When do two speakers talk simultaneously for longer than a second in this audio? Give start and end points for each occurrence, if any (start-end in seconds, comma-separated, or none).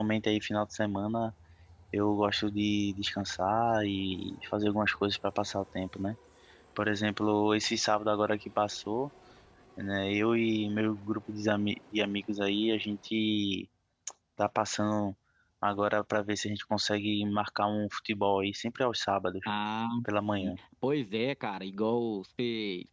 none